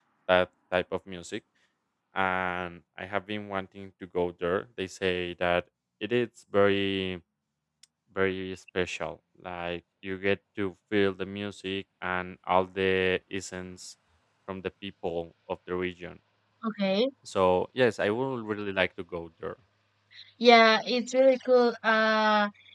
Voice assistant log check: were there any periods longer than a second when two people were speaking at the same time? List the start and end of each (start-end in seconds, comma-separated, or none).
none